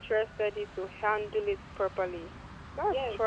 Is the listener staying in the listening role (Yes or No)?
No